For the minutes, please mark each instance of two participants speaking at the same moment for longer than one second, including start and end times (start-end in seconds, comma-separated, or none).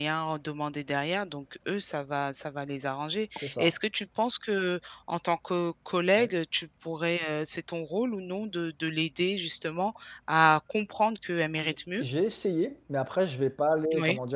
none